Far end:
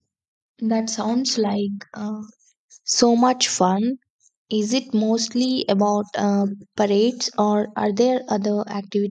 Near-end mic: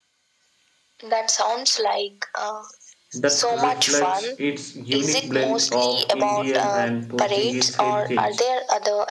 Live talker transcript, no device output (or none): that reflects its unique blend of Indian and Portuguese heritage.